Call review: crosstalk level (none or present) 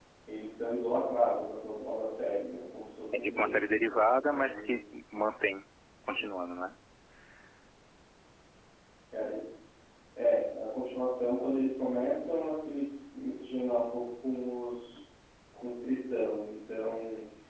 present